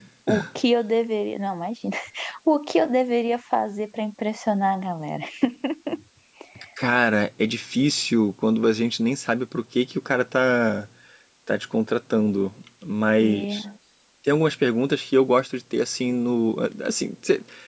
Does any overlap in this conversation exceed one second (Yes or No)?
No